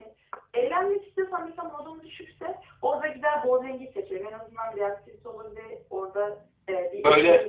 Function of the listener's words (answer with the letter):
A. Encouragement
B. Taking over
A